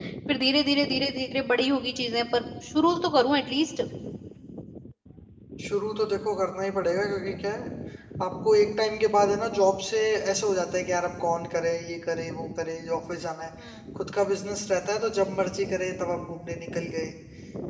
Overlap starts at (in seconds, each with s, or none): none